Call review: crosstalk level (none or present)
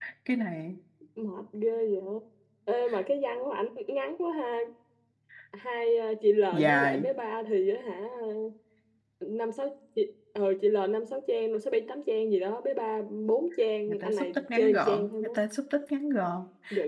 present